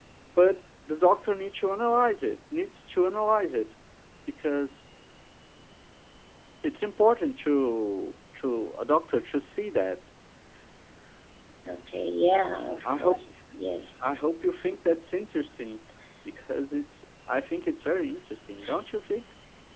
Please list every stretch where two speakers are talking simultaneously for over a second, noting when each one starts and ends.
none

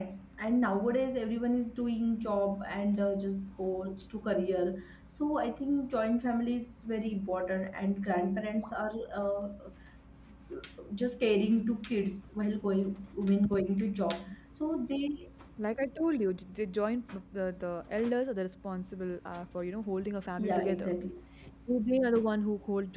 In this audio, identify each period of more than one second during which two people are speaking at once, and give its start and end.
none

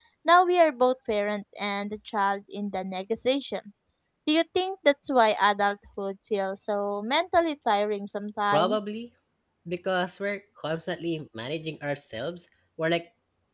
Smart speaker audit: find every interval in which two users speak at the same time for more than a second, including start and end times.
none

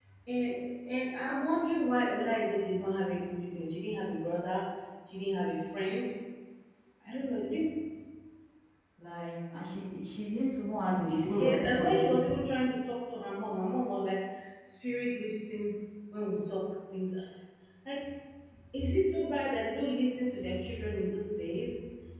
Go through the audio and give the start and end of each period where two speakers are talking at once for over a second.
11.0-12.4

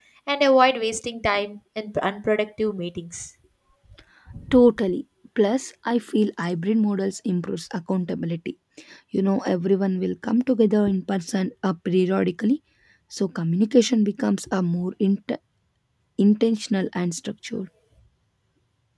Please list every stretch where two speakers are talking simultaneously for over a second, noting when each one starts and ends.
none

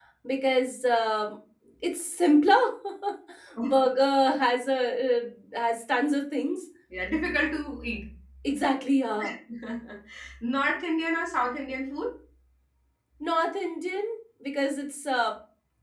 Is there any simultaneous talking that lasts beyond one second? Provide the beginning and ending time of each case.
none

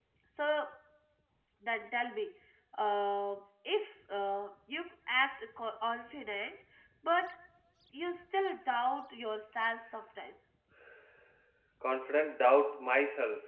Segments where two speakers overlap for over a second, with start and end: none

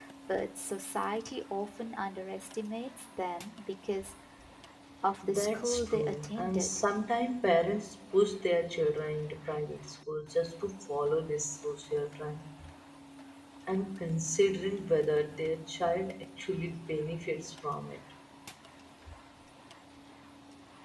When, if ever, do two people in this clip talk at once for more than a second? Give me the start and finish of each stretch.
5.3-6.8

